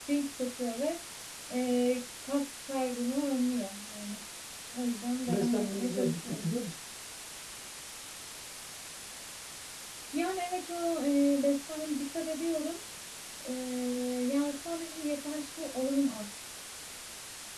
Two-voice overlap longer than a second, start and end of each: 5.3-6.5

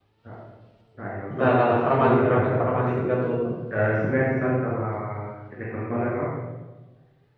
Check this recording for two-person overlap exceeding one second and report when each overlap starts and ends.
1.3-3.0

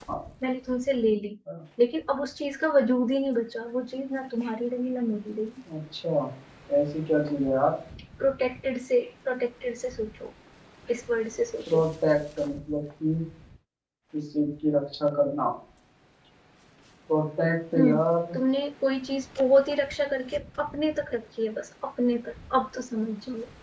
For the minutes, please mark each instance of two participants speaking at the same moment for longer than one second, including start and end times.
none

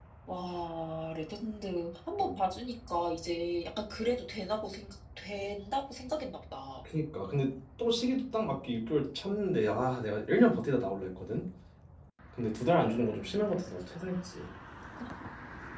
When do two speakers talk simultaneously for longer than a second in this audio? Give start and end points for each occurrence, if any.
none

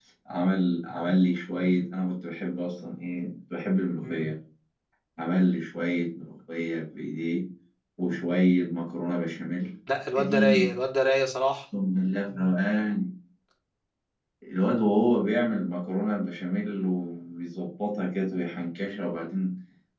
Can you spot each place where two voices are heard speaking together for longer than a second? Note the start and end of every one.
none

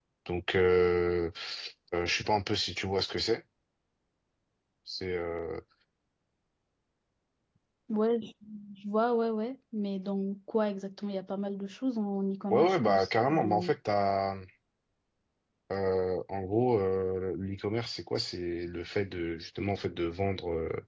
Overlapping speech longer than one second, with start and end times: 12.5-13.7

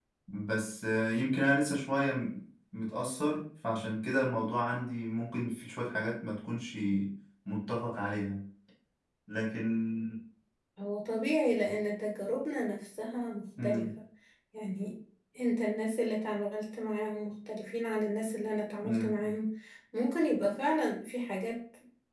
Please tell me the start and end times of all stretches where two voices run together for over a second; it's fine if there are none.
none

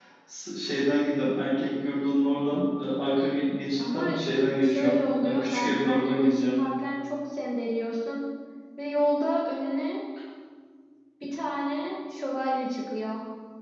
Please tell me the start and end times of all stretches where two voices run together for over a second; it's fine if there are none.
4.6-6.6

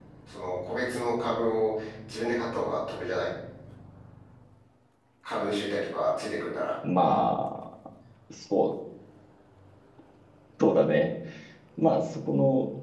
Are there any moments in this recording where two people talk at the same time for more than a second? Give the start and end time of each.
none

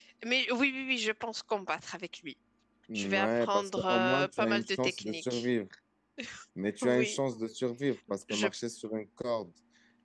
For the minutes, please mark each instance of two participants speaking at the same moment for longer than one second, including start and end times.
2.9-5.5

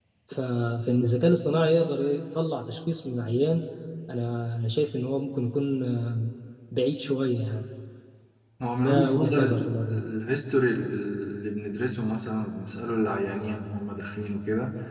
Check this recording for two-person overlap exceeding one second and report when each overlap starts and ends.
8.8-10.0

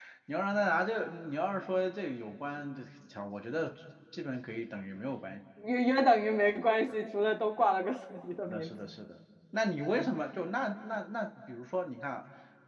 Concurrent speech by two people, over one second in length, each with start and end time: none

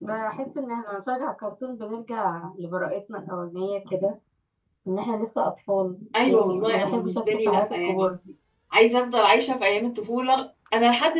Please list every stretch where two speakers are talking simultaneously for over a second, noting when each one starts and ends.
6.3-8.1

